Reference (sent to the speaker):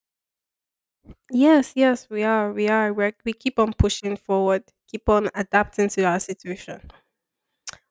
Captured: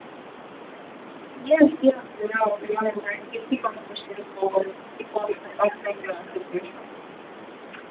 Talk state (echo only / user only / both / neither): echo only